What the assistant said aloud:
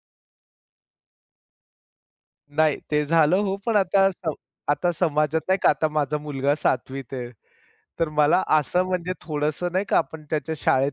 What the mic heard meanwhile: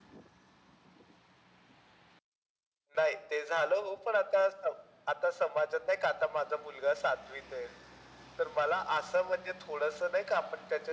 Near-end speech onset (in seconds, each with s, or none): none